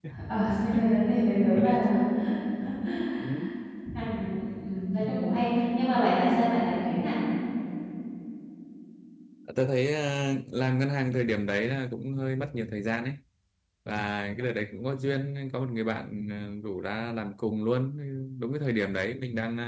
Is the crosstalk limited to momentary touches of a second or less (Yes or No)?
Yes